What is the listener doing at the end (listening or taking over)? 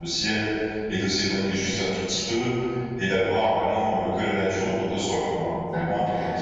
taking over